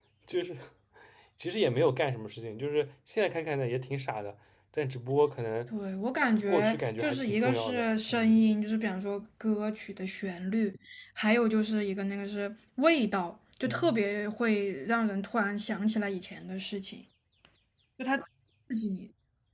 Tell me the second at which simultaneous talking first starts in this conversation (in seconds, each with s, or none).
6.3 s